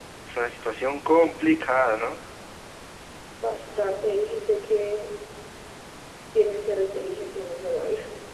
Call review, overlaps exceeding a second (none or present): none